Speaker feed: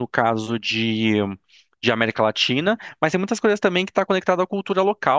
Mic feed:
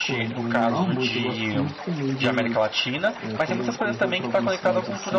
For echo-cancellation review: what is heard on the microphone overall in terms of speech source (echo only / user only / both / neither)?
both